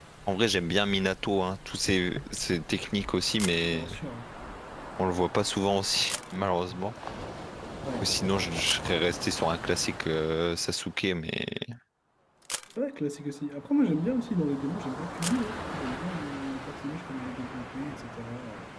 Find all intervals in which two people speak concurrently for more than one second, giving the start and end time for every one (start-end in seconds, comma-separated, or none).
none